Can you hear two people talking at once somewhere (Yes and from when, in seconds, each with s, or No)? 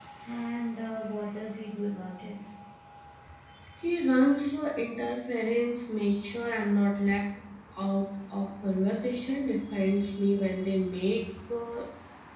No